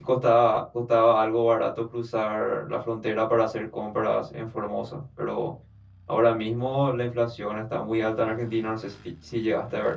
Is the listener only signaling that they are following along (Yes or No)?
No